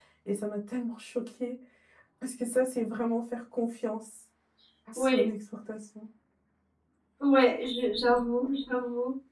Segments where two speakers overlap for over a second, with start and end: none

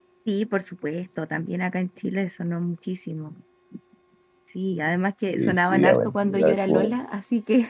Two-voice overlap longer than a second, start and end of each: 5.3-6.9

